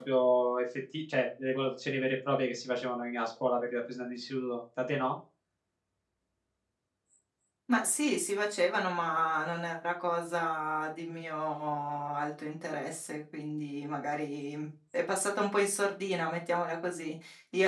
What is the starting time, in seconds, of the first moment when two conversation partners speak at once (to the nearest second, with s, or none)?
none